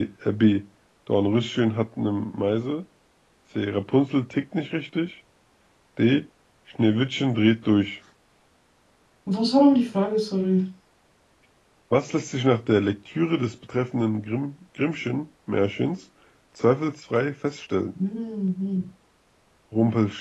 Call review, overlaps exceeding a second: none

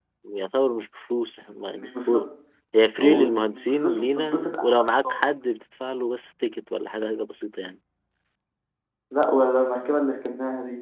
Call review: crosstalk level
present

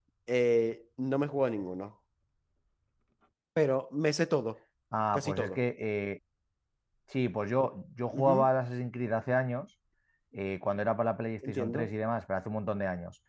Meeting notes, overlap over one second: none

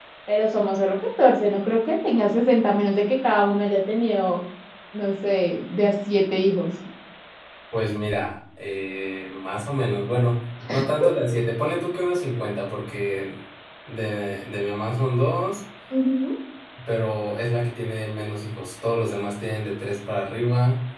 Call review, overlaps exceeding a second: none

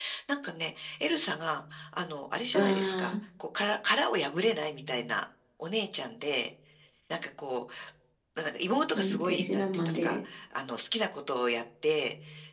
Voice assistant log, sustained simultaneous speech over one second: present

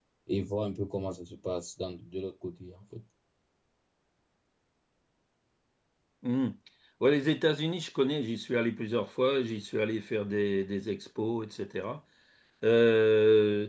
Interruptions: none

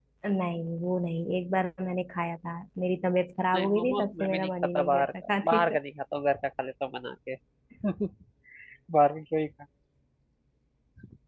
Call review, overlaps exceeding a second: present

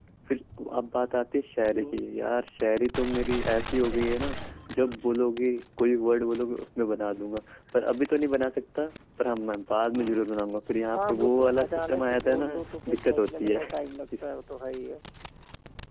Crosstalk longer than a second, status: present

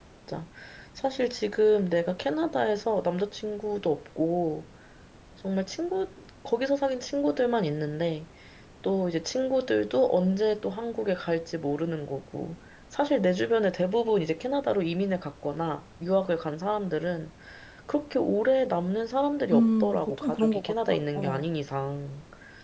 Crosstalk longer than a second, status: present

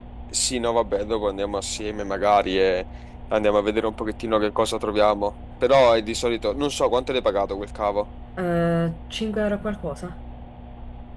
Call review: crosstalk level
none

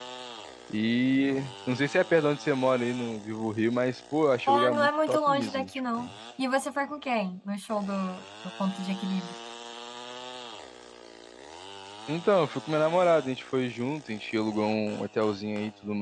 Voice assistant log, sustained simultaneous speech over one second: present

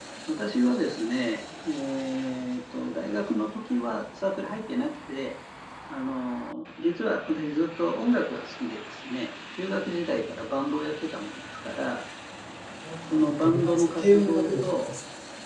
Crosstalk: present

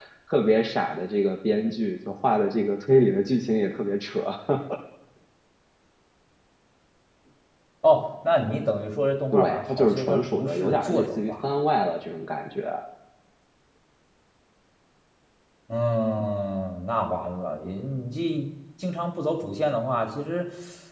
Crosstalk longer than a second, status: present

